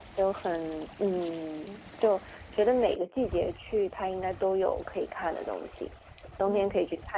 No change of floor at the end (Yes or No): Yes